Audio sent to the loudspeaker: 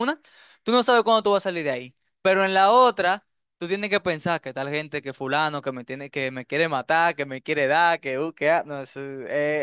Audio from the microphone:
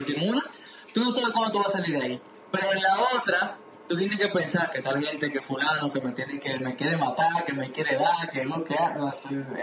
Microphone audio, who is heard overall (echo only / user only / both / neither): echo only